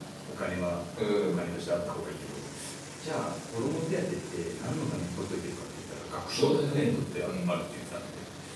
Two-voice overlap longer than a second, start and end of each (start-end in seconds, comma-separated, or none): 6.3-7.6